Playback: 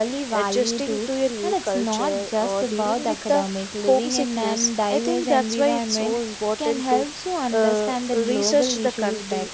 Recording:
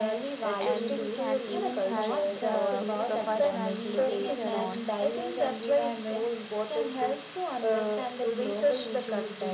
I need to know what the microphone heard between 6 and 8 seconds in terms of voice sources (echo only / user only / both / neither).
echo only